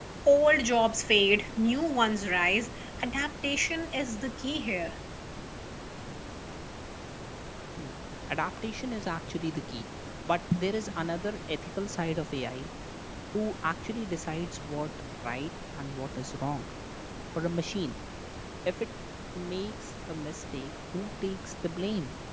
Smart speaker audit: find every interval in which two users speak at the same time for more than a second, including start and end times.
none

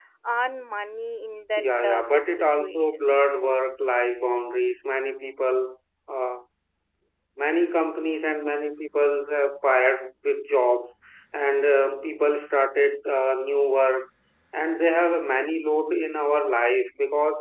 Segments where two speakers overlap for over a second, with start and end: 1.6-3.0

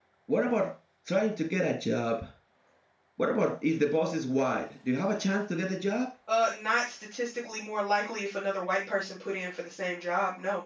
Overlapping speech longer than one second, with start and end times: none

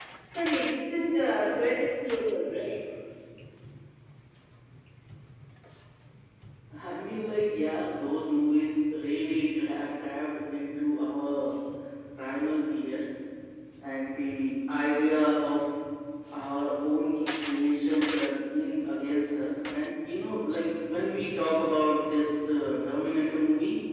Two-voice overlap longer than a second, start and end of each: none

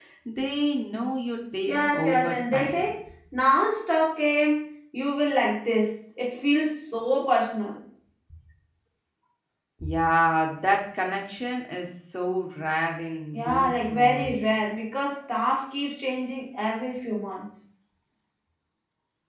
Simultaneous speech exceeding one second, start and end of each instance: 1.7-2.9, 13.3-14.6

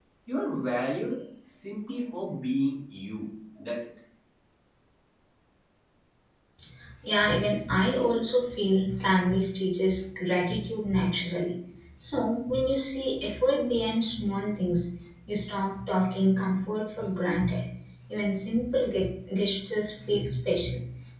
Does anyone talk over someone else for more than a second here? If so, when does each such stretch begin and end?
none

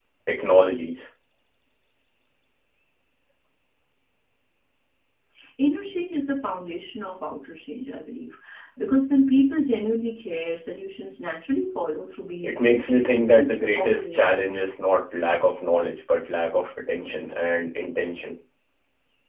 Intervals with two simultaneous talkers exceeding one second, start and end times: 12.4-14.4

